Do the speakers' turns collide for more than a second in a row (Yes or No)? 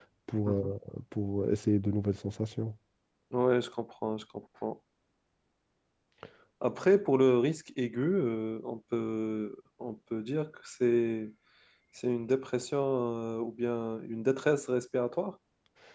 No